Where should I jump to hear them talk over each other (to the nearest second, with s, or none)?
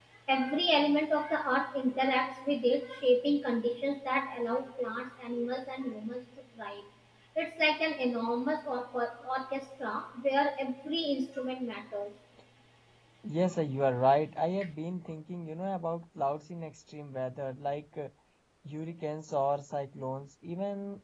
none